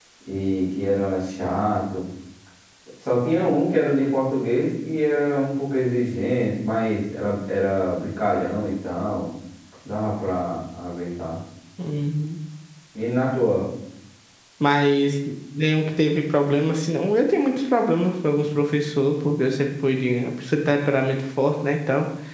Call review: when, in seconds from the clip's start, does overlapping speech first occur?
none

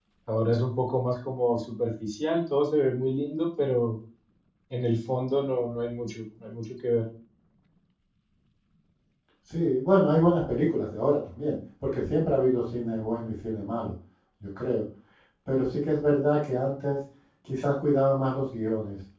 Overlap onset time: none

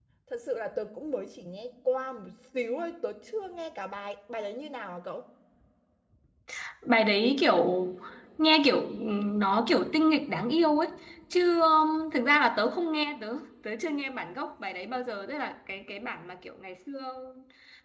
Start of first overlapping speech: none

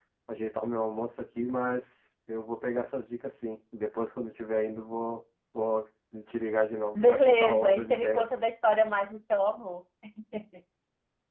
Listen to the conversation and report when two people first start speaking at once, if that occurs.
6.9 s

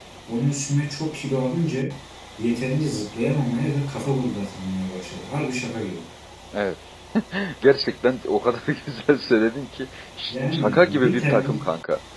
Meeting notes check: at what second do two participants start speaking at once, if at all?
10.3 s

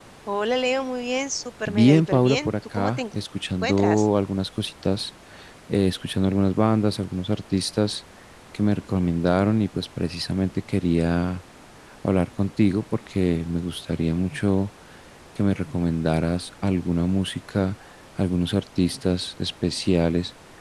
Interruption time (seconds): 1.7 s

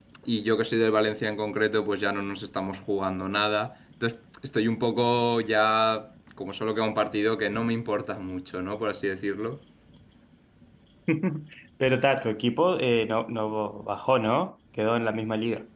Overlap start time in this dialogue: none

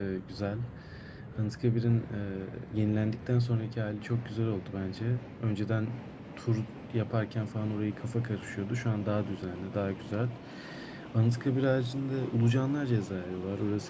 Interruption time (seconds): none

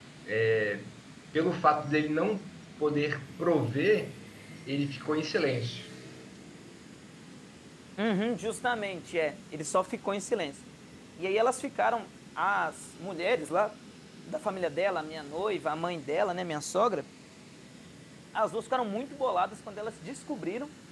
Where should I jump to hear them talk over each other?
none

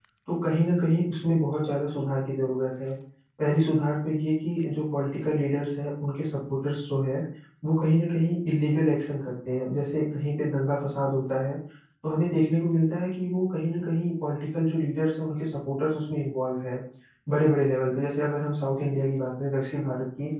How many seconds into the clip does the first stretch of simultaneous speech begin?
none

